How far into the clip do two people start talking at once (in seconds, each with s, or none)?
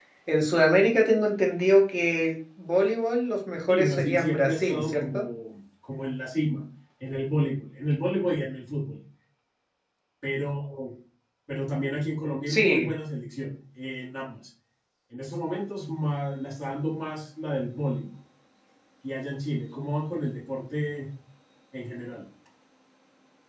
3.7 s